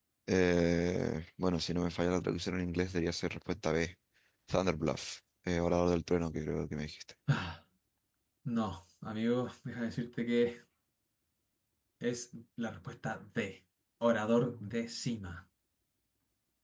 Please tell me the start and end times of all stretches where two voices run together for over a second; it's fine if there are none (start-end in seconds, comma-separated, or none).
none